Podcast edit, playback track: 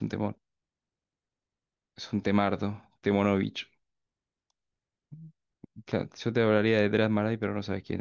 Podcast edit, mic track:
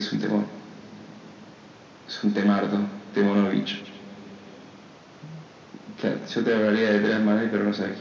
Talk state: echo only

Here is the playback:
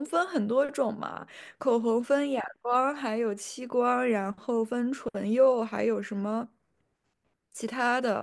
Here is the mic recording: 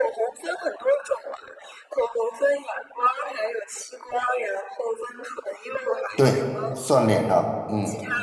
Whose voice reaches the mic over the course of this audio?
both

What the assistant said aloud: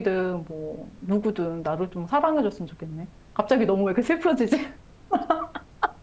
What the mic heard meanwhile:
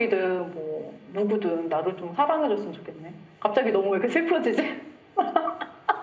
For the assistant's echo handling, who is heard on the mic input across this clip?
echo only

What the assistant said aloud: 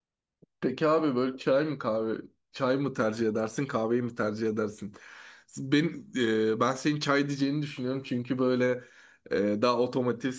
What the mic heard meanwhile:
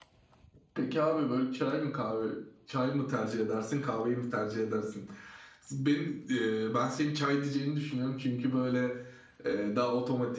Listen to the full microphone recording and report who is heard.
echo only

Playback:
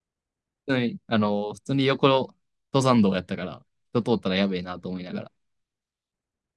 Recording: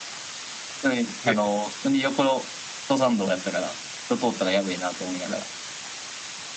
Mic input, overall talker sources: both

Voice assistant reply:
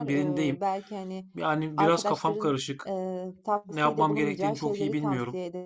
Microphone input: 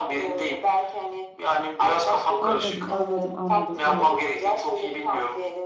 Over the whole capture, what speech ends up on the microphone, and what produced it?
both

